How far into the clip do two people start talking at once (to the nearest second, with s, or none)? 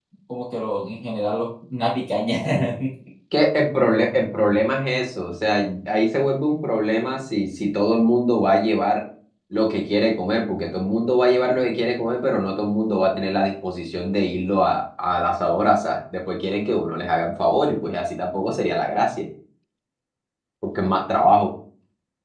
none